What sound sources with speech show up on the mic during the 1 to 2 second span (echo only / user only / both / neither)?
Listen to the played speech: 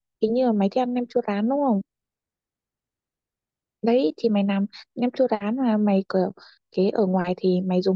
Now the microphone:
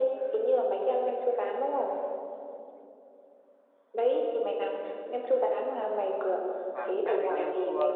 echo only